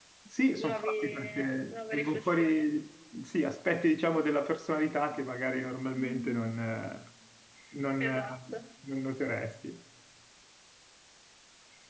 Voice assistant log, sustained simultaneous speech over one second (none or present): present